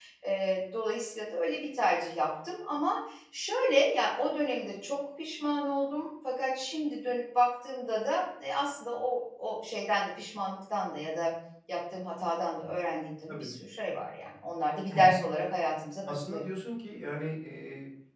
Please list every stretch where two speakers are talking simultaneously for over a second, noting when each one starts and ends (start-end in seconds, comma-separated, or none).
none